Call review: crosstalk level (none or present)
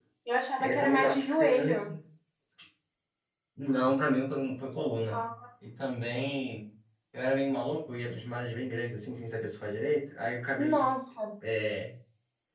present